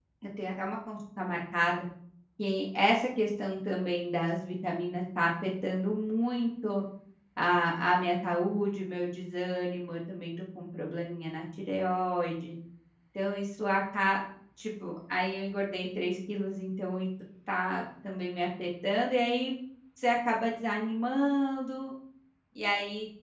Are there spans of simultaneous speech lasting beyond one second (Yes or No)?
No